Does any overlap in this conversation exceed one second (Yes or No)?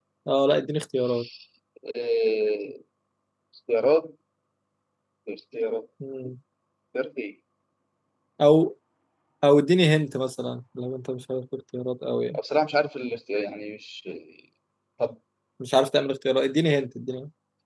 No